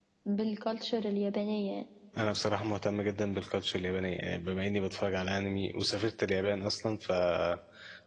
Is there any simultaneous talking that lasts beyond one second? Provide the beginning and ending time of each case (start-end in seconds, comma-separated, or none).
none